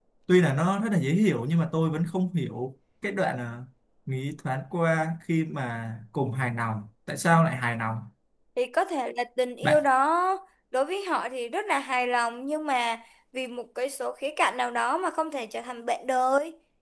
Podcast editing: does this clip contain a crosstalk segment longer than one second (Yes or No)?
No